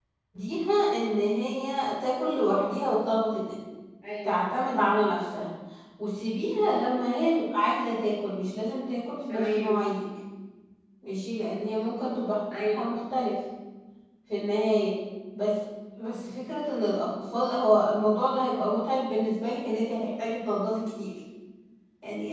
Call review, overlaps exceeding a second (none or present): none